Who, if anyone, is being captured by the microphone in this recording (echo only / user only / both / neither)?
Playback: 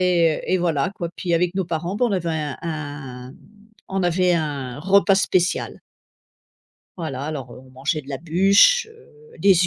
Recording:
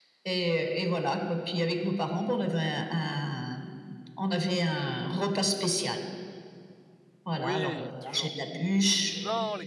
both